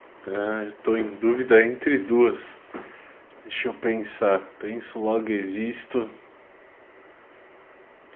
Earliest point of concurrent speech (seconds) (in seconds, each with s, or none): none